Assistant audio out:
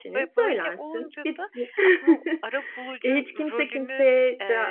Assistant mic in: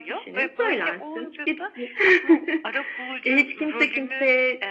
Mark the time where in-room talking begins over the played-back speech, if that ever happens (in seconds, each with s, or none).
none